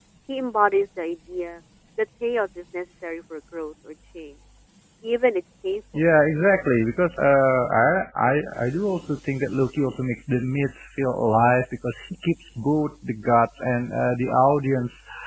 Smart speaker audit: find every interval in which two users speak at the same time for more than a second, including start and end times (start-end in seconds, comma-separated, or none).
none